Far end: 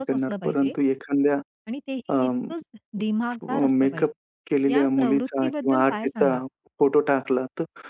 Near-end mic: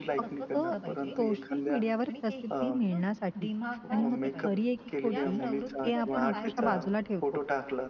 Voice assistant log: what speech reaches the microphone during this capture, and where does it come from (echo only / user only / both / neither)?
both